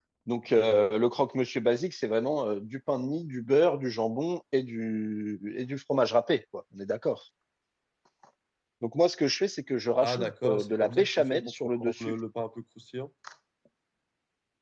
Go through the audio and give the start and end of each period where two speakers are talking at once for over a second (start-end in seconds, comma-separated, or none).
10.0-12.1